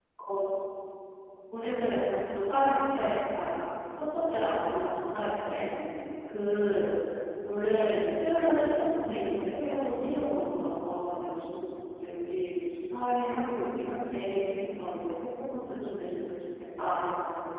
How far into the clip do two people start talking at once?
none

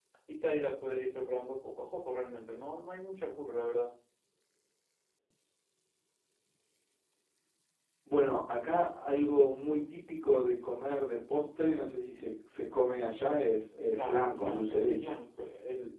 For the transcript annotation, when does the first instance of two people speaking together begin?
13.9 s

